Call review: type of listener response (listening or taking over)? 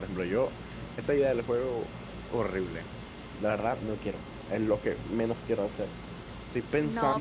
taking over